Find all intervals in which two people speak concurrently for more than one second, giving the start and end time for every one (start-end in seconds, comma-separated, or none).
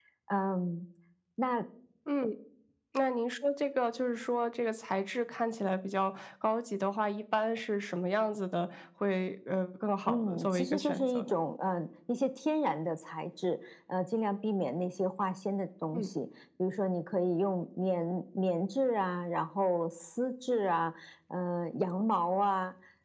10.1-11.4